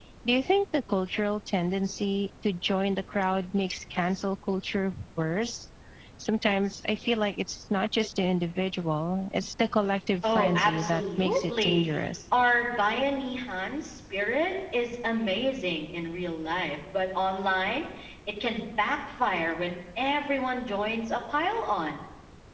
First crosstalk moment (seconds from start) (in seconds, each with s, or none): 10.2 s